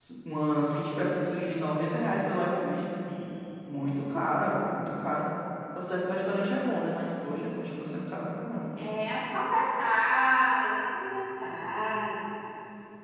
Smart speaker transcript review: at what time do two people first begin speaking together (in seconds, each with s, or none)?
none